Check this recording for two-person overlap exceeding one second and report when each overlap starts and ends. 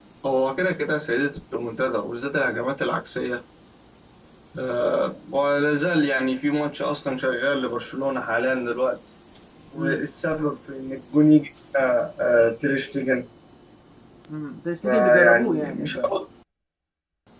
14.8-16.1

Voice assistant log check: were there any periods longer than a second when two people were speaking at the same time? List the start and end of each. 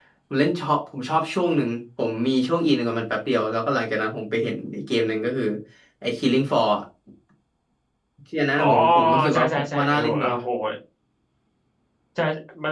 8.6-10.3

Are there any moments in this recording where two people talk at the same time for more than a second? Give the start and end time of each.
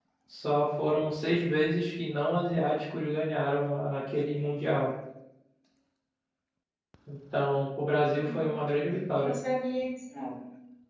none

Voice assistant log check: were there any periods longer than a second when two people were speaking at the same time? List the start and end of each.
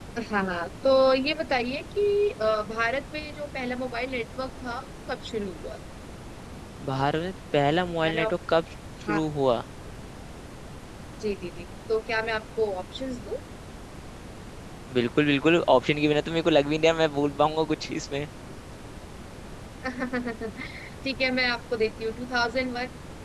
none

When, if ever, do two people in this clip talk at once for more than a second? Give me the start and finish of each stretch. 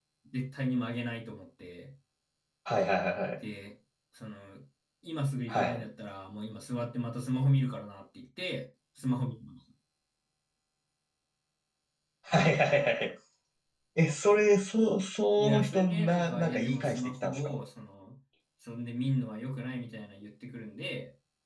15.4-17.4

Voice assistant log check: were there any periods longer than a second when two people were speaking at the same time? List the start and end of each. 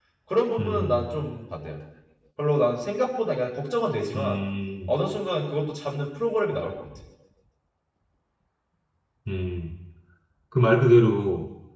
none

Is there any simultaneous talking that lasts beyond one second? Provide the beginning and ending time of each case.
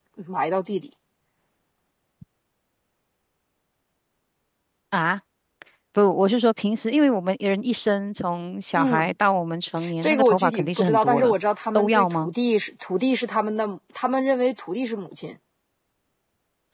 10.0-11.3

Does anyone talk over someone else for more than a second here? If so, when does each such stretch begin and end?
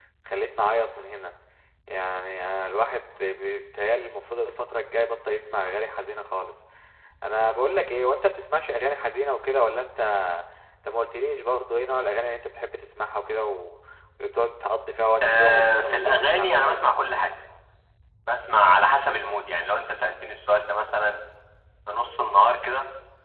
15.2-16.8

